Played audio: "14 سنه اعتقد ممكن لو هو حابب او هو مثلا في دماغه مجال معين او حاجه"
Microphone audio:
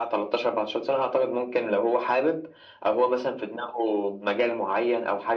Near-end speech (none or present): none